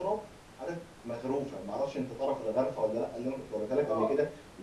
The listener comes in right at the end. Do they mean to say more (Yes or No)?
No